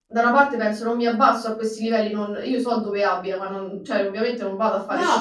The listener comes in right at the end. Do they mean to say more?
No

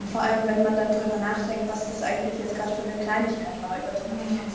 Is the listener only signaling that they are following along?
Yes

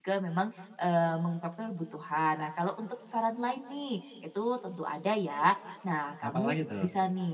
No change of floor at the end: Yes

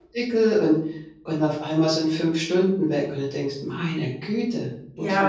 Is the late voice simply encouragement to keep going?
No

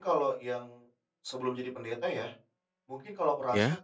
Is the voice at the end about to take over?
No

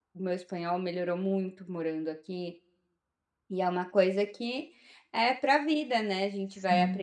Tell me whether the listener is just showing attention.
Yes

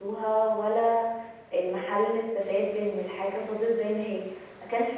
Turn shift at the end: No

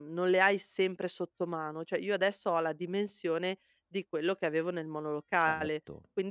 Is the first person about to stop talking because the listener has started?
No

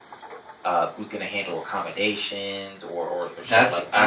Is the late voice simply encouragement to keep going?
No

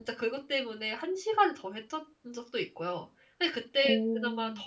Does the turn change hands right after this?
No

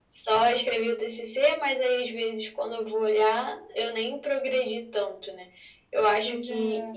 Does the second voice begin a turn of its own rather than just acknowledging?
No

